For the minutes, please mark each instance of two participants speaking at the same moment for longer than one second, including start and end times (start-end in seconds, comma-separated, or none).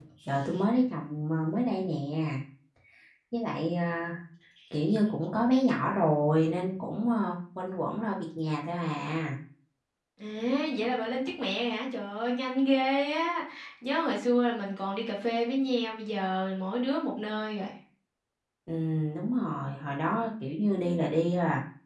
none